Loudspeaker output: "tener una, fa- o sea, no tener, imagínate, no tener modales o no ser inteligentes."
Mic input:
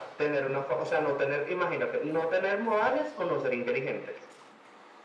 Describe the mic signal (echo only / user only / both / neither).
echo only